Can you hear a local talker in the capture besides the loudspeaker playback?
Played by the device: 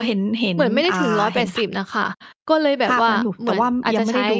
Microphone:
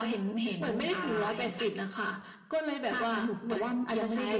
No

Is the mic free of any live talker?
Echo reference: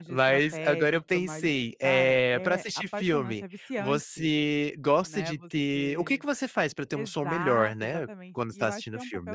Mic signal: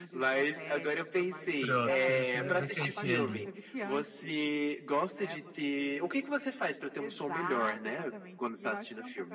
No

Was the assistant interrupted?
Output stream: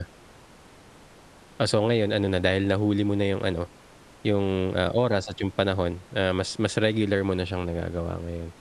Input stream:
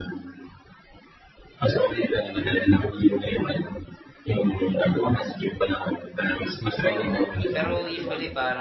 Yes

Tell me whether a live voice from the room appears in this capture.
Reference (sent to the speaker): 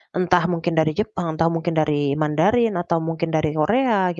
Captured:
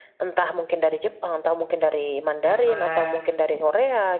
Yes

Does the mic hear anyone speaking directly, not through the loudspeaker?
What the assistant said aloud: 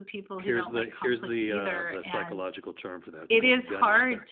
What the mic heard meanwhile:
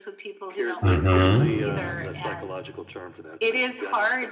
Yes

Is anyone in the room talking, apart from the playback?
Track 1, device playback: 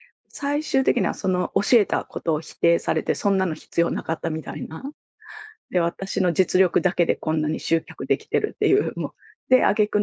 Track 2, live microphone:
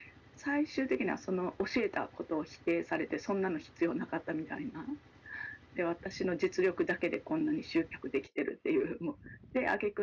No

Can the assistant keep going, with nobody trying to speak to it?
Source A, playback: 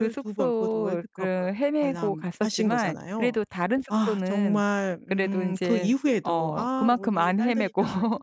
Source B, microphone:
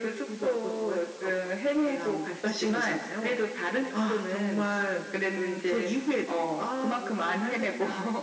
No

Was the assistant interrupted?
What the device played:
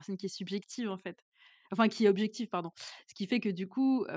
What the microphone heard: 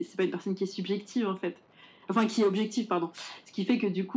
No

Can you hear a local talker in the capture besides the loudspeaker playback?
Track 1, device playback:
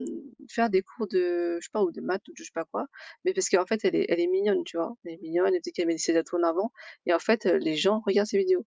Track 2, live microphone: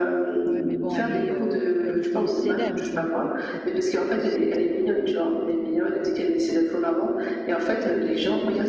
Yes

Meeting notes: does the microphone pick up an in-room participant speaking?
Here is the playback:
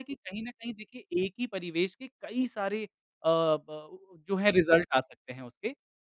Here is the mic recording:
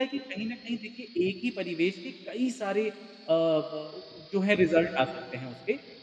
No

